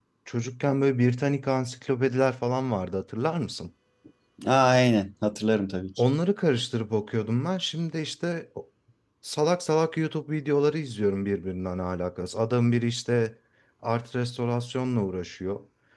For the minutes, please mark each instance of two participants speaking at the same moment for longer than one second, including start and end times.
none

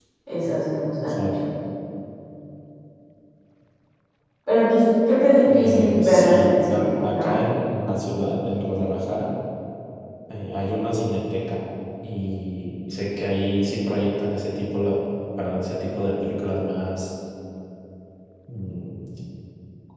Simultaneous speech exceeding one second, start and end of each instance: 5.5-7.4

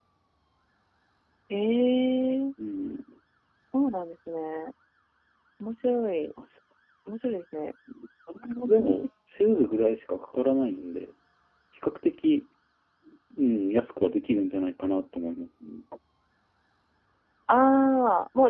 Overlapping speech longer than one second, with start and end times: none

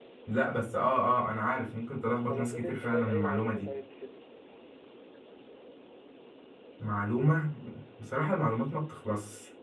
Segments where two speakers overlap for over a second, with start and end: 2.3-3.7

